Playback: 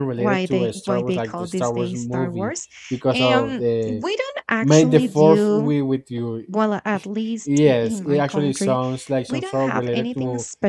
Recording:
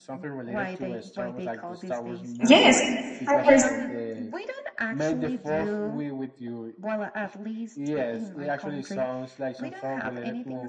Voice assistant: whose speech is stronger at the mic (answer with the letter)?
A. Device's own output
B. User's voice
B